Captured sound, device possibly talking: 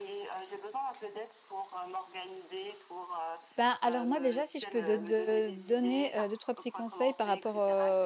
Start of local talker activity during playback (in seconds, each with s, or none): 3.5 s